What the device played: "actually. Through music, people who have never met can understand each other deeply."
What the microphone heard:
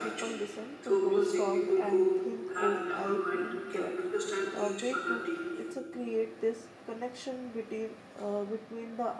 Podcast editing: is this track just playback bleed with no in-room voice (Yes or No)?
No